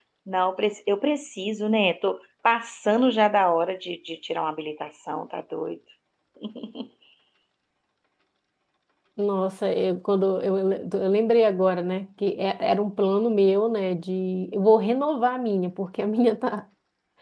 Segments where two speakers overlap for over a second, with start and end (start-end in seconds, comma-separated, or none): none